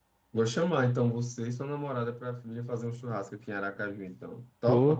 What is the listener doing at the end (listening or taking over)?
taking over